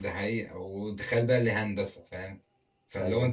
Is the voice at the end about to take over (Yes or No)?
No